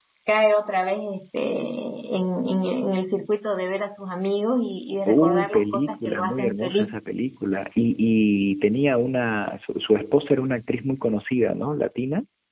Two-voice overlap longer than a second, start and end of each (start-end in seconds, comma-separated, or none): 5.1-6.9